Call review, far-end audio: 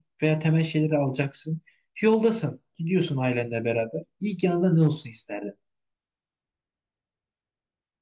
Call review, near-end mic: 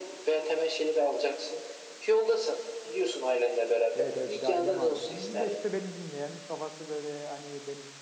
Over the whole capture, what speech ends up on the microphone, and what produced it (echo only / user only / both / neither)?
both